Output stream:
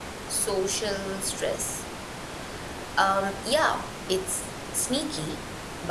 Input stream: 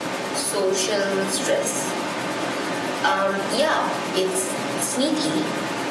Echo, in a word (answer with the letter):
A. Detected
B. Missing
A